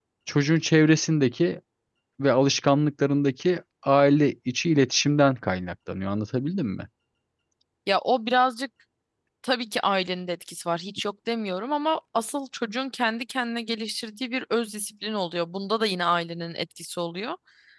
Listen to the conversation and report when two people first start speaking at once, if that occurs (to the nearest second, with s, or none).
none